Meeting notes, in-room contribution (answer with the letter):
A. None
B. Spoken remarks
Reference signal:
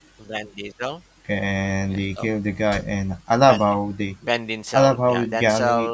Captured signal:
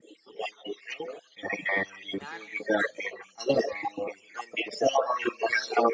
B